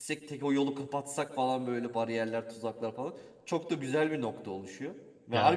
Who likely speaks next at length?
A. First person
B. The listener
A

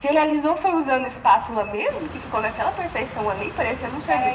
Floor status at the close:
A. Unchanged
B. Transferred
B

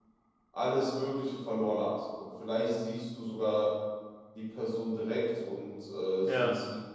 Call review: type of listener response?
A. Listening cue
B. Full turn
A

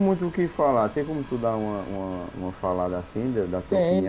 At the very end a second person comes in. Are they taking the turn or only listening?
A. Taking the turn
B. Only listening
A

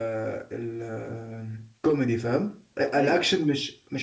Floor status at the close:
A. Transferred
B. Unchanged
B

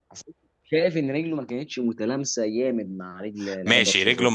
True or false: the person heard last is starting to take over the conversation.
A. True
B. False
A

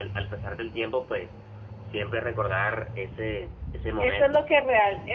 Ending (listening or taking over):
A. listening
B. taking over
B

